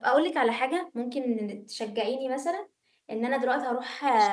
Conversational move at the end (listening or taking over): listening